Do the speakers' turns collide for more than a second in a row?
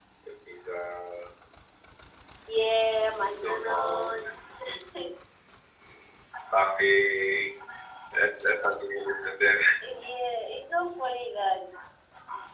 Yes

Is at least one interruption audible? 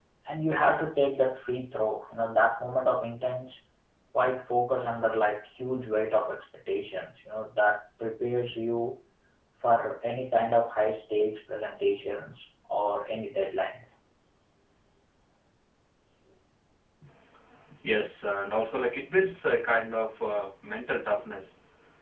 No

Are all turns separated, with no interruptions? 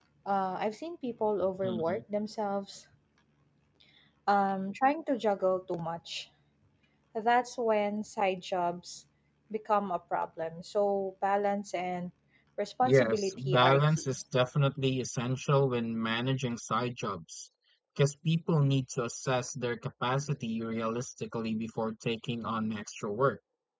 No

